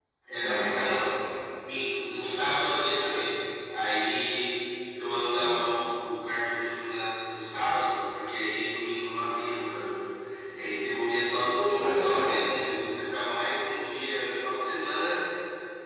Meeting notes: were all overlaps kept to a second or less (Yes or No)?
Yes